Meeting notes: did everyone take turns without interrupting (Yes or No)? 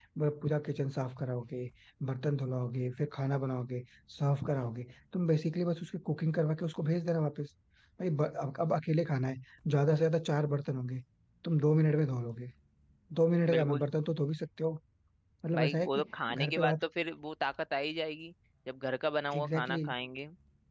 No